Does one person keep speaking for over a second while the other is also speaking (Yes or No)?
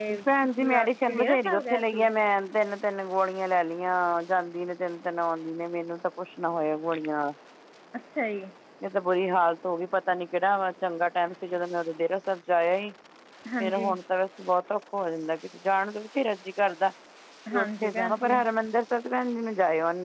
Yes